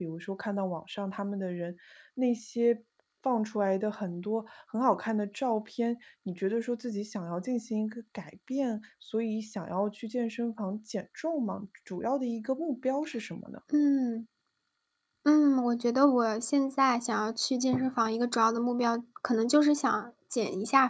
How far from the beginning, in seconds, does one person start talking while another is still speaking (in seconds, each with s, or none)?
none